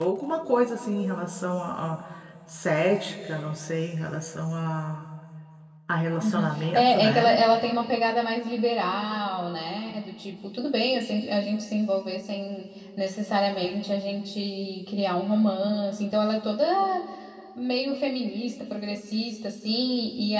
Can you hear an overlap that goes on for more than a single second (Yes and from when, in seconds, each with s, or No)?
Yes, from 6.2 s